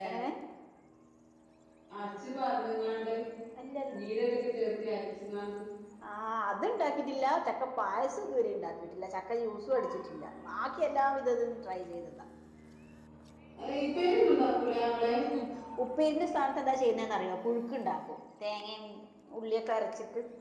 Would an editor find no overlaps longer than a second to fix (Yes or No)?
Yes